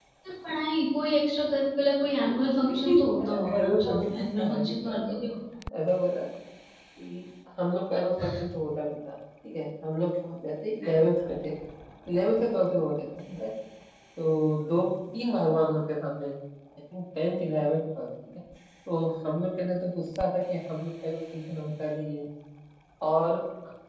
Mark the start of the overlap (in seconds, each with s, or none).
2.3 s